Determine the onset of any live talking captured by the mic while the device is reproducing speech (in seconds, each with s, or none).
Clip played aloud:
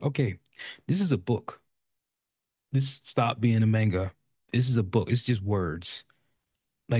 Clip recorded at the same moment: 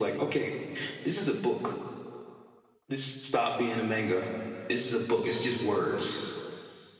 none